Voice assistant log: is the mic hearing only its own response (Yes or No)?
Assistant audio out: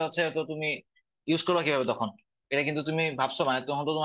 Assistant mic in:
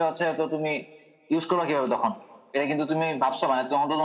Yes